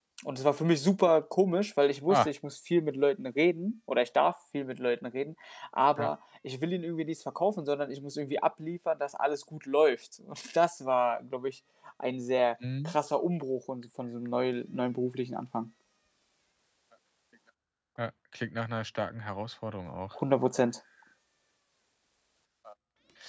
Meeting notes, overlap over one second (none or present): none